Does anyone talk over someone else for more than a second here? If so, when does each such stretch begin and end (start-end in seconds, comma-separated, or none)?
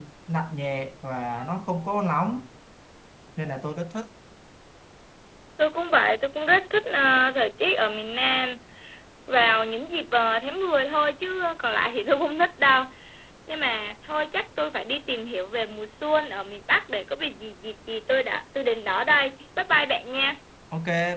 none